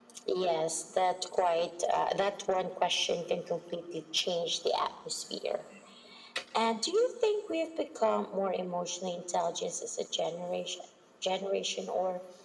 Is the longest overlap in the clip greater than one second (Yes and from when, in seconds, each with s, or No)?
No